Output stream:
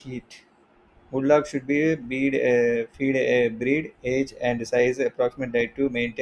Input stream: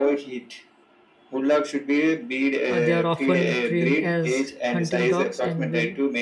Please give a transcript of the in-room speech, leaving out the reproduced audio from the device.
Uh, they are often trained as hunting dogs and will

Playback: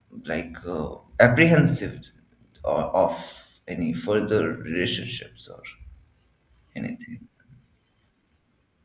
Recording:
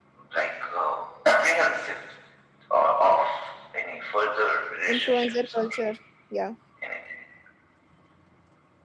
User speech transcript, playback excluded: Influencer culture. Yeah.

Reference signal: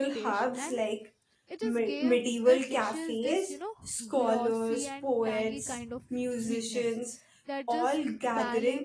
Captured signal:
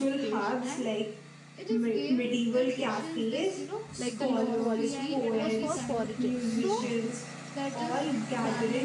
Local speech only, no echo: like the low quality it was for porridges so

